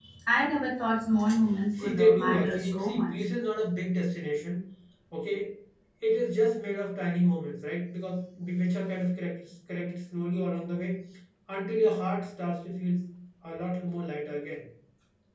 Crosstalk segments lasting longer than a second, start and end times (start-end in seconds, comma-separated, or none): 1.8-3.1